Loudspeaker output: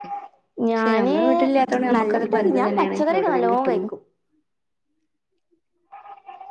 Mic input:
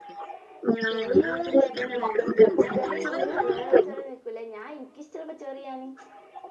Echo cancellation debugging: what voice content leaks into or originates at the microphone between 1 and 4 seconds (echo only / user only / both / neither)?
both